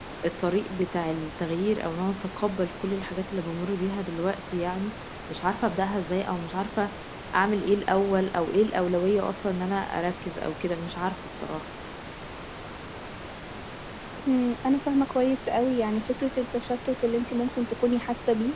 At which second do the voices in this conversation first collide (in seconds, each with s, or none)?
none